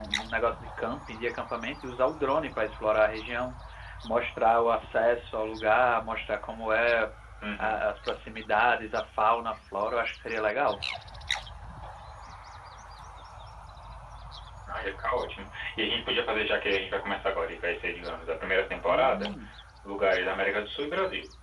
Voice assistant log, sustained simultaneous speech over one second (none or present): none